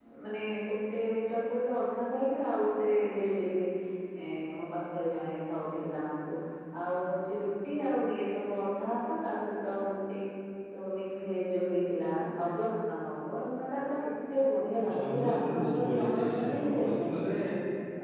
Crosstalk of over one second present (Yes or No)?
Yes